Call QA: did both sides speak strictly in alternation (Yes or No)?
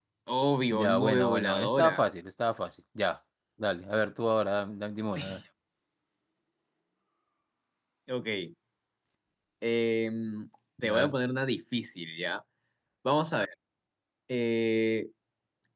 No